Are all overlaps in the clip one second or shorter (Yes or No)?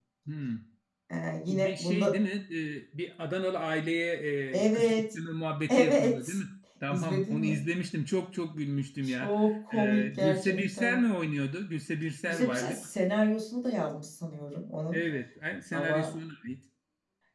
No